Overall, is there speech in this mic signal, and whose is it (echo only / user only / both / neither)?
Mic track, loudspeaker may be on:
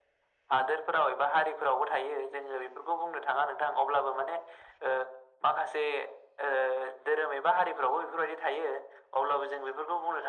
echo only